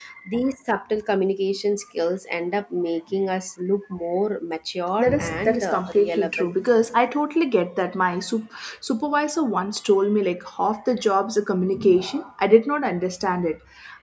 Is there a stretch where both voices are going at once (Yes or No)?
Yes